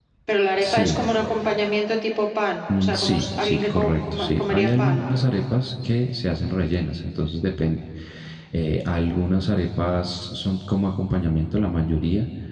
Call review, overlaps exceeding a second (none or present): present